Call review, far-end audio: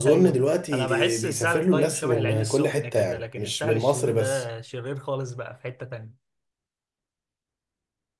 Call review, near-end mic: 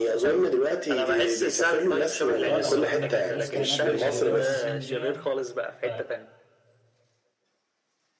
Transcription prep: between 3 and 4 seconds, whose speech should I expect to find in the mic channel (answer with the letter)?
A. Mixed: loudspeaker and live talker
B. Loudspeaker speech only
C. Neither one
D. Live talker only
A